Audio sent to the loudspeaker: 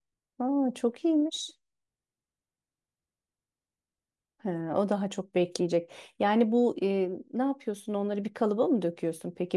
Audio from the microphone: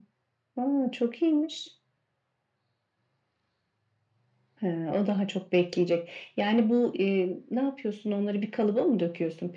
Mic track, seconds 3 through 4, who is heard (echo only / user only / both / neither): neither